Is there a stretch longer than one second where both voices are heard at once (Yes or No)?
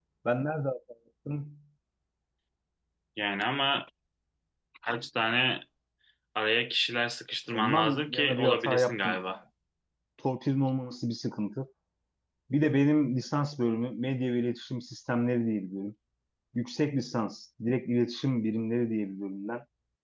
Yes